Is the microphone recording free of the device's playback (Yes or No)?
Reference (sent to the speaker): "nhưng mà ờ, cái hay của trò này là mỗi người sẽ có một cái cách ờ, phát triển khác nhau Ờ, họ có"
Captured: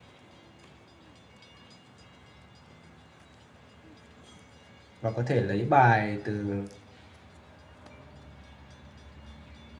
Yes